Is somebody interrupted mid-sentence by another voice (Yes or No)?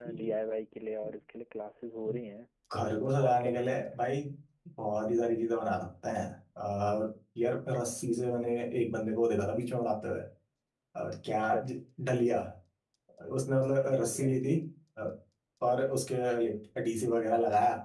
Yes